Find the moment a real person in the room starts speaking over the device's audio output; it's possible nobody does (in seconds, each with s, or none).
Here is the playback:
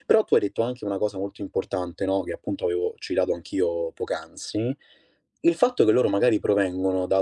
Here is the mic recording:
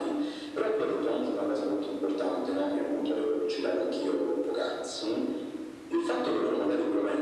none